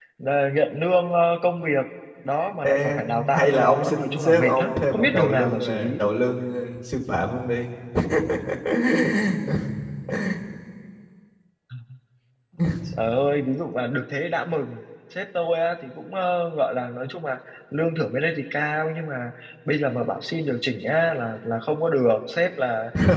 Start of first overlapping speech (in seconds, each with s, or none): 2.6 s